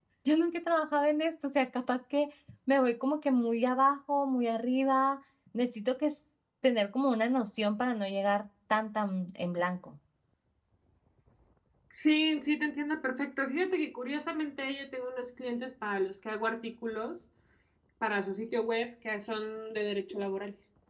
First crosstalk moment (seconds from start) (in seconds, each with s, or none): none